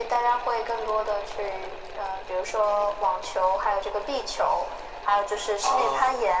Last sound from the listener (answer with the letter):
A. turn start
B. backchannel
B